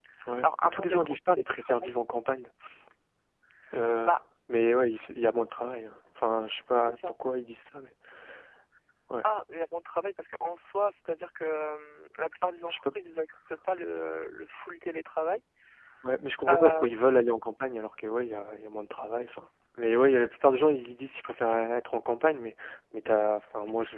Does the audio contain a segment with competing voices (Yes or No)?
Yes